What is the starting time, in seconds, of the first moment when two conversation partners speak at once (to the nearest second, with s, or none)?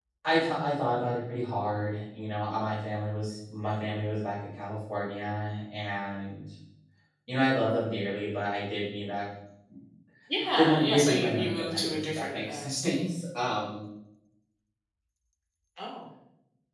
11 s